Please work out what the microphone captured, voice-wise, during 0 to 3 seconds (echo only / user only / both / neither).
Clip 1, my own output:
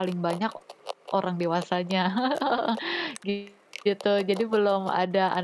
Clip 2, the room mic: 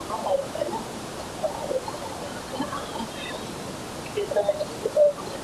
echo only